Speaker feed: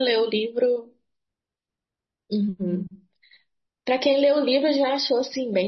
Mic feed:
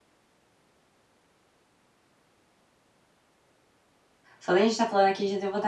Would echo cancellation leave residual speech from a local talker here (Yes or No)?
Yes